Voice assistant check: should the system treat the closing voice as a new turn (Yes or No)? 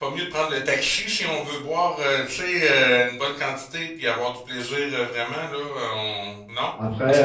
No